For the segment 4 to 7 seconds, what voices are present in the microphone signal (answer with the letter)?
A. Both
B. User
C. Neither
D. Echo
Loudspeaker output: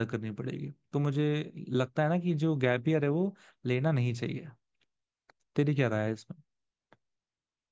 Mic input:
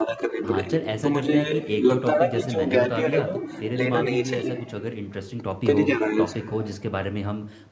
A